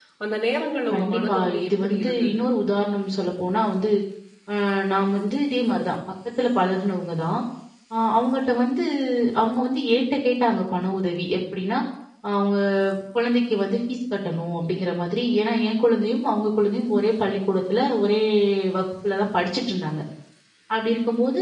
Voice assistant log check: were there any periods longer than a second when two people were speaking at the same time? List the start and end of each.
0.9-2.4

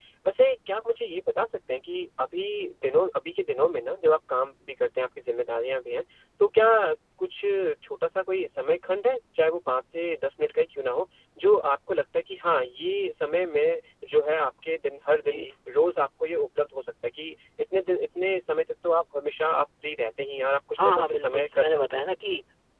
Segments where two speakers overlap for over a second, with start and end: 20.8-22.0

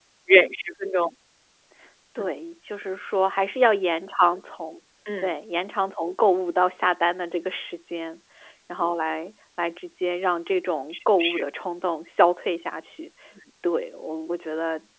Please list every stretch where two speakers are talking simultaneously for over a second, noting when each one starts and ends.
none

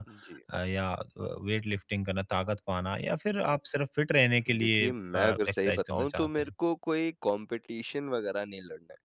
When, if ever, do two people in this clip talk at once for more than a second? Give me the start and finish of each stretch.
4.5-6.5

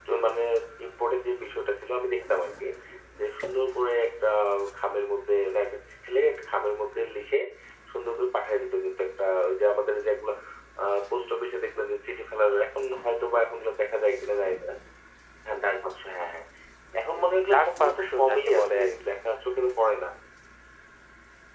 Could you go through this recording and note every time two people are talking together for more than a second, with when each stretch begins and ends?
17.2-19.1

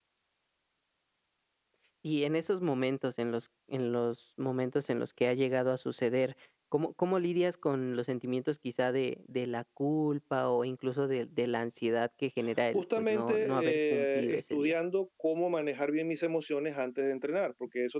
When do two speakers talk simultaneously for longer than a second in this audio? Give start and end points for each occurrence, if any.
12.7-14.7

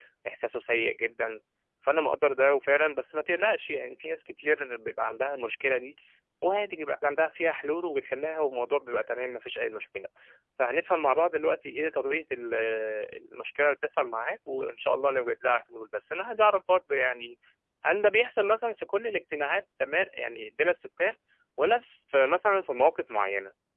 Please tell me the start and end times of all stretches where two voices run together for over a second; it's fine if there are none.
none

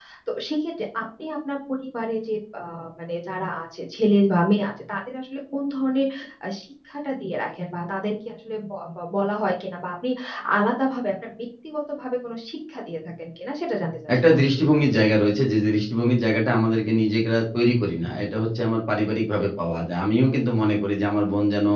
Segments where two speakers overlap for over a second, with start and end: none

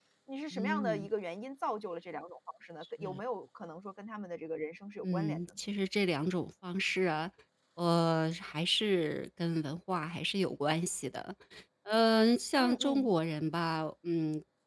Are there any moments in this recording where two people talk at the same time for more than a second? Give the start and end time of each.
none

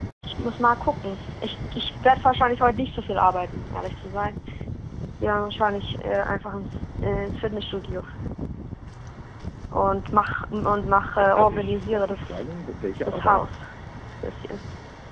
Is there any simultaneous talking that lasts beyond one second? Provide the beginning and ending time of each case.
11.2-12.4

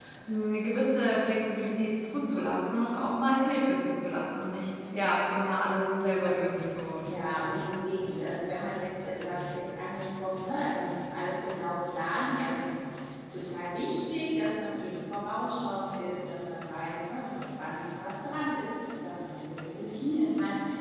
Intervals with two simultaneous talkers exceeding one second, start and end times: none

